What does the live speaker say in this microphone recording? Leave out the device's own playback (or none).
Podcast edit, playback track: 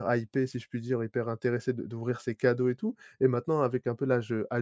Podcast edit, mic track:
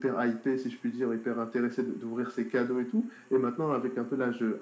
none